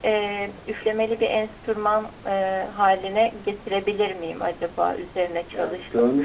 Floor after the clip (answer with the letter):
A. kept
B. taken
B